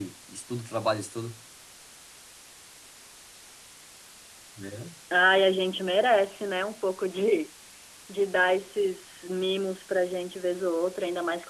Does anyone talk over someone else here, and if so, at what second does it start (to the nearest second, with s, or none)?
none